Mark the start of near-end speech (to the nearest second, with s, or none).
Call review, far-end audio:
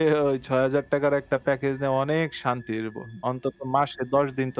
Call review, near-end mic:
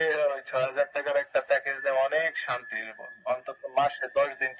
none